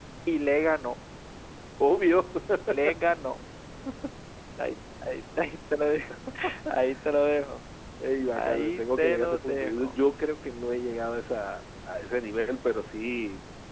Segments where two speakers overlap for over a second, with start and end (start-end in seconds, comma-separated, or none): 8.4-10.0